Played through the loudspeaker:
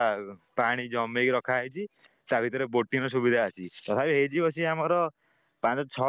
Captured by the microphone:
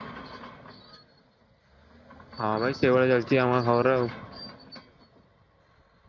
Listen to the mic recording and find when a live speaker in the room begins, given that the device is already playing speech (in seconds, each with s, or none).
2.4 s